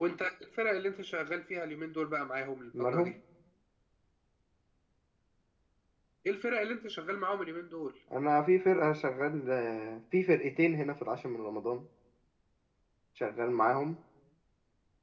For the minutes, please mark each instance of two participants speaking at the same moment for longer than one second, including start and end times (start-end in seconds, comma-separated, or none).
none